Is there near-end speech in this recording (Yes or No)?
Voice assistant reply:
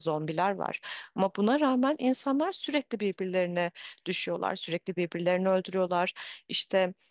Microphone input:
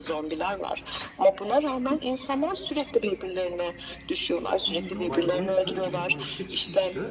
Yes